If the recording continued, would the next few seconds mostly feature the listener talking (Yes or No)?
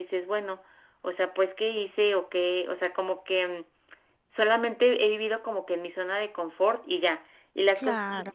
No